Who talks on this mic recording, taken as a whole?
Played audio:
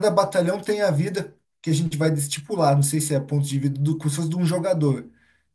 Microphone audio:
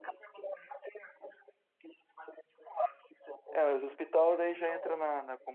both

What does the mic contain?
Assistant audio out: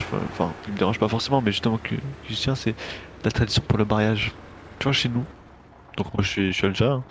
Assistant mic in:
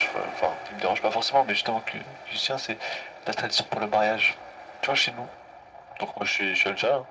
echo only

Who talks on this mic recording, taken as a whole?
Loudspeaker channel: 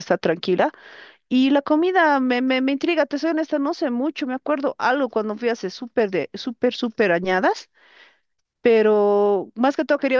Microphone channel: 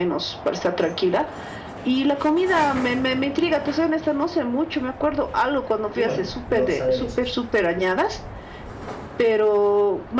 both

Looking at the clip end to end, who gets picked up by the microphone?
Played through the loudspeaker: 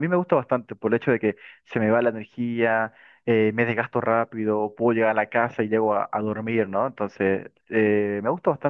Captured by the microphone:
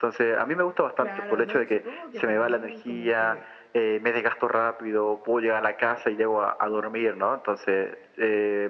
both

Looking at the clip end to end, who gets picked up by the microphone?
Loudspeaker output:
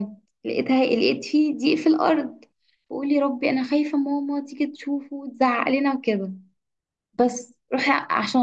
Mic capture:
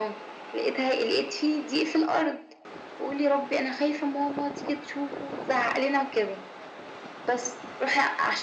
echo only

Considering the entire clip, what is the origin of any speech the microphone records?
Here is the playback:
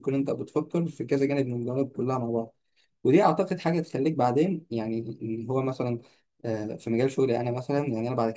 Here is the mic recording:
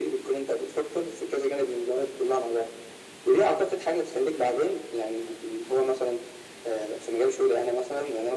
echo only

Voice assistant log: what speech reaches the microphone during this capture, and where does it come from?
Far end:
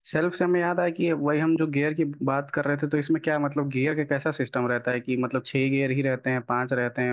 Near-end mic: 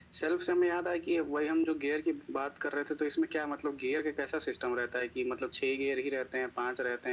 echo only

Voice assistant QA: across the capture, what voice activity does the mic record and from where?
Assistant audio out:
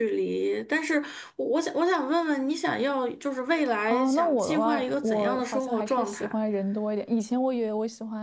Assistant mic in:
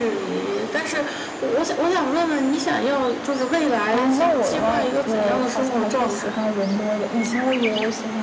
echo only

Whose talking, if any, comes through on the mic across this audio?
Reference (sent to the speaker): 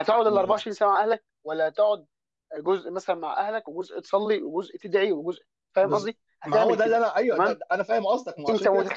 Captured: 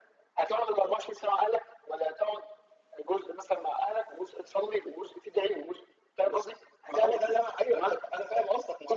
echo only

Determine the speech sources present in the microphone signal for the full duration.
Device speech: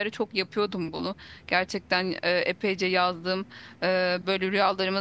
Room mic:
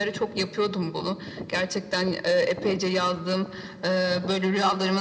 echo only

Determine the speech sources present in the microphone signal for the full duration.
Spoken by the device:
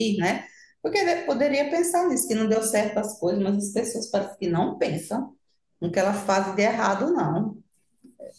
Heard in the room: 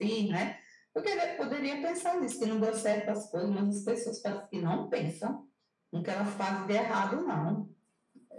echo only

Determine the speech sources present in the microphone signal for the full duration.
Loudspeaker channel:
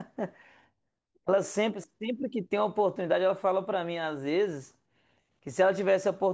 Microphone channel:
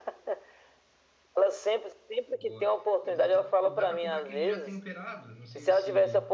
both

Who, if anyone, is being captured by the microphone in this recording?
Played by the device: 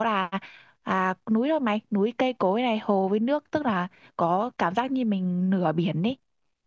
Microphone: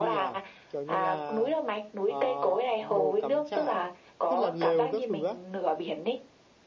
both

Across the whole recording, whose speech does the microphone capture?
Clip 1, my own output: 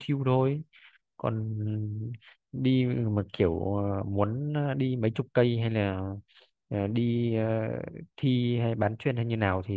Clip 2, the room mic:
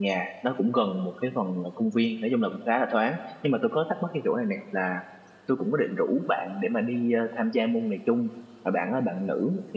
user only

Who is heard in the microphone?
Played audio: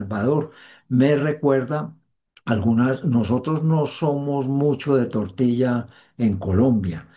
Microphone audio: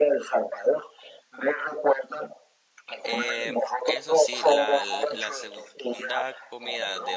both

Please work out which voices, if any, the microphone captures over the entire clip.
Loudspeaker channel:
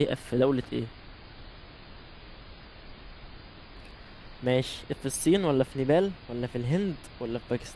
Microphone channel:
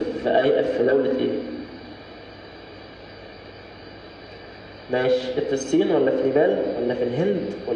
echo only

